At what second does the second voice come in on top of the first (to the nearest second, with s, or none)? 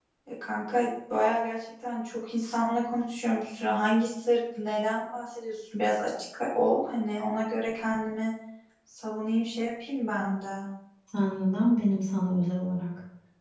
none